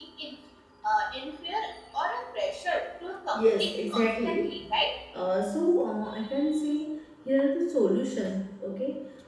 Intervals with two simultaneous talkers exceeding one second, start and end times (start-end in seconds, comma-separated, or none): 3.3-4.6